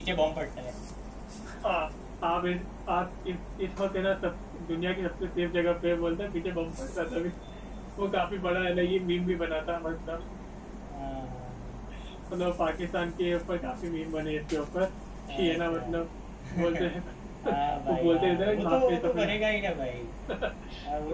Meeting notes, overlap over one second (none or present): present